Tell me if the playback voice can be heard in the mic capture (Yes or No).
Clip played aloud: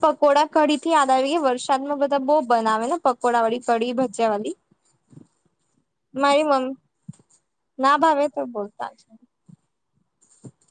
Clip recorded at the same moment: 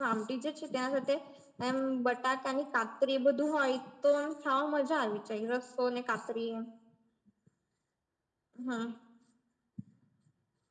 No